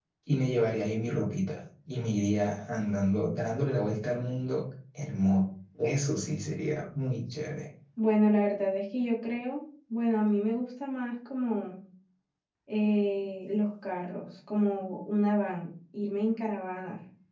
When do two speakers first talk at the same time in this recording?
none

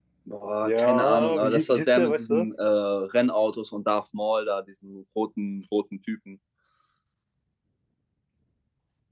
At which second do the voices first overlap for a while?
0.6 s

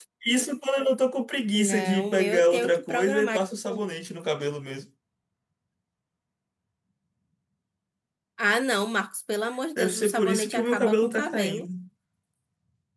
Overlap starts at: 1.5 s

